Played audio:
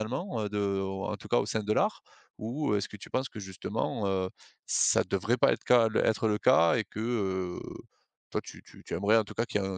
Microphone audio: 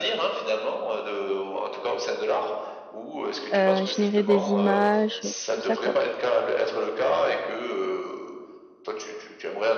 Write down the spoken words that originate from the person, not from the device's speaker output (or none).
heu, générer des images, heu, tout ça, quoi.